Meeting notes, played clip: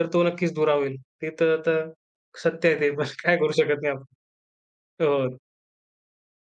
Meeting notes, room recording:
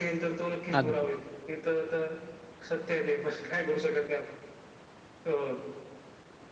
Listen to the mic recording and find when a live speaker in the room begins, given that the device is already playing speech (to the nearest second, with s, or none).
1 s